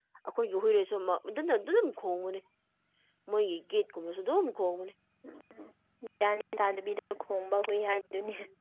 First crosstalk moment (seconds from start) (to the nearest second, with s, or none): none